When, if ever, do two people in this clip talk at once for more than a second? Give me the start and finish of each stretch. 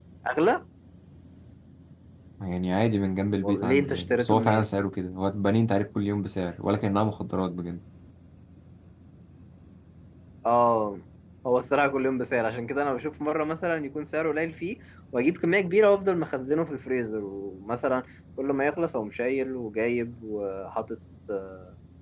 3.4-4.7

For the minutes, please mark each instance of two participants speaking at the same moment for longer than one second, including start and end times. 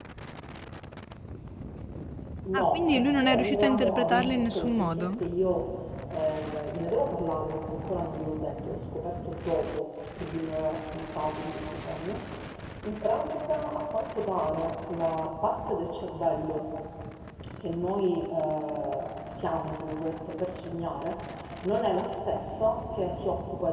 2.5-5.2

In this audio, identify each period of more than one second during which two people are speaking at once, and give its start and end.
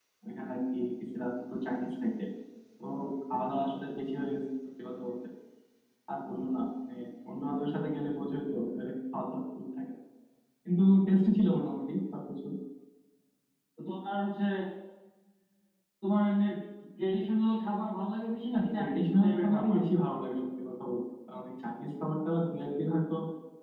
18.5-19.8

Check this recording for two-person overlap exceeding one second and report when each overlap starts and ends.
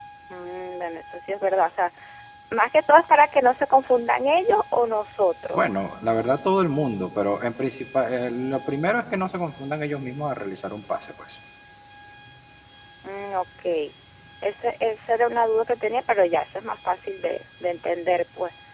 none

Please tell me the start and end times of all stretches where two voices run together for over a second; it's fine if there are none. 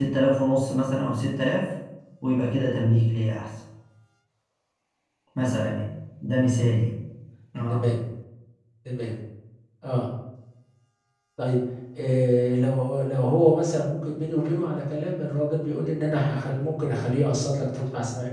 none

